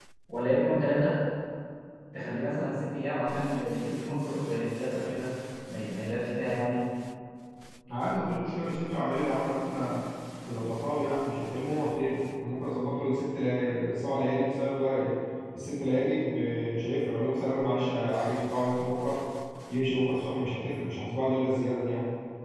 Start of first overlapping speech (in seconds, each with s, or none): none